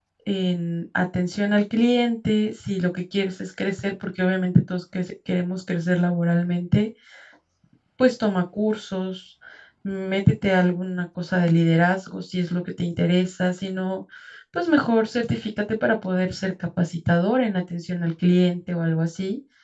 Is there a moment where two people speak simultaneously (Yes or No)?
No